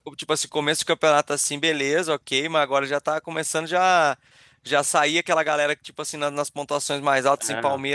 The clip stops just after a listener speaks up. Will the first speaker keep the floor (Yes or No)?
Yes